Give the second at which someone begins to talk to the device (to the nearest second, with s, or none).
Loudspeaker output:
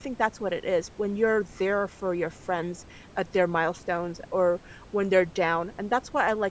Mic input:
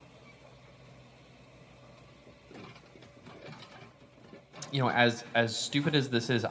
5 s